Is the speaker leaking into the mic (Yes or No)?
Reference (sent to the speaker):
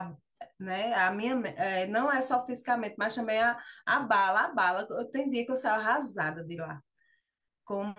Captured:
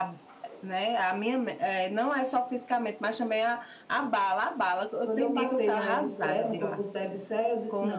Yes